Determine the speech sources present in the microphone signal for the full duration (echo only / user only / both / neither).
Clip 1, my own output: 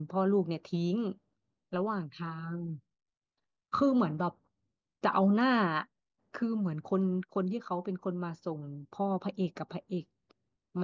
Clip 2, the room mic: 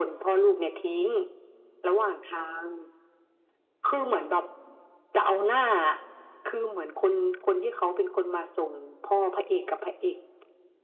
echo only